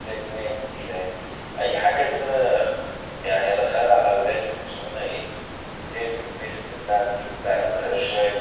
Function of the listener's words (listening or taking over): listening